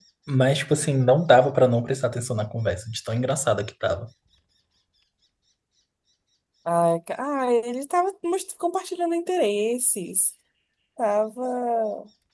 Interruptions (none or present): none